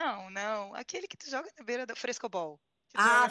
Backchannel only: No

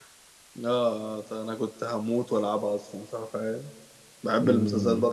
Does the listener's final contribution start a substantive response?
Yes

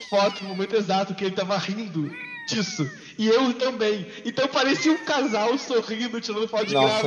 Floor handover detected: Yes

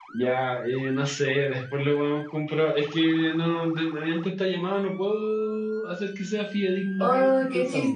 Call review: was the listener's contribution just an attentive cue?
No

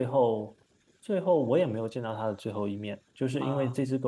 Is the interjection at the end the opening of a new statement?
No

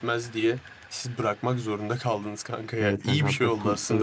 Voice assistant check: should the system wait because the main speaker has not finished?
No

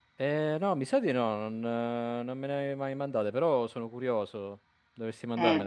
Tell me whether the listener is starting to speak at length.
Yes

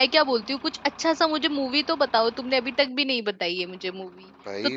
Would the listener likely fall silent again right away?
Yes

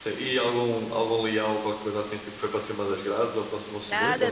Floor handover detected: Yes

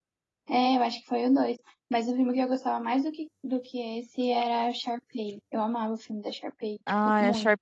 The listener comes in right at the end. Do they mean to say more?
Yes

